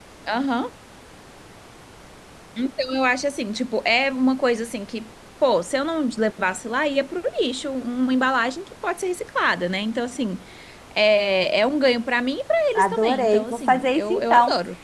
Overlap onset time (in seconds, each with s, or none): 12.8 s